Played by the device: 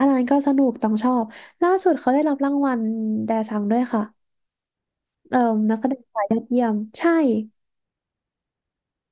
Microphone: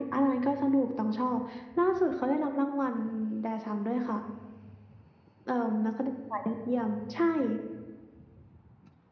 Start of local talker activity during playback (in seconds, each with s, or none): none